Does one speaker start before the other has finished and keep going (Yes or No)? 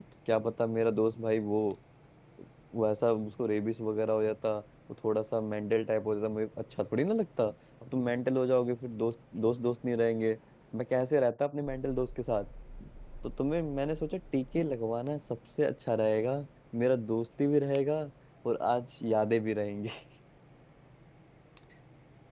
No